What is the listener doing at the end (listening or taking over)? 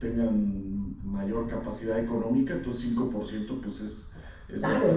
listening